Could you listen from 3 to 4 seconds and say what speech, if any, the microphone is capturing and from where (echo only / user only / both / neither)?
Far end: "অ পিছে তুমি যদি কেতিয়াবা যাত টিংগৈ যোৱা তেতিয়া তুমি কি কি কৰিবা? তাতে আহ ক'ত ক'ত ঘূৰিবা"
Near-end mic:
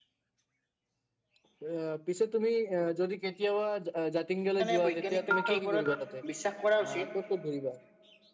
echo only